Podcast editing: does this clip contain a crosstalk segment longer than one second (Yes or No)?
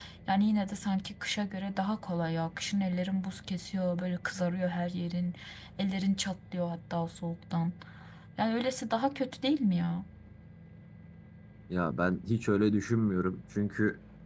No